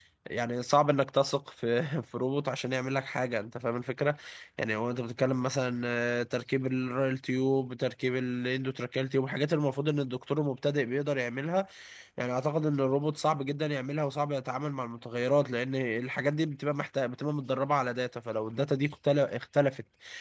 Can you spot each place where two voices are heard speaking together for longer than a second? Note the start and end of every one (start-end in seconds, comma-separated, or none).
none